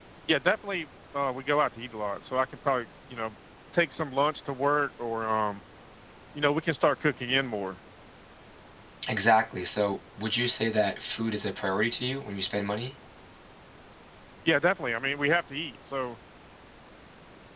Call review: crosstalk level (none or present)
none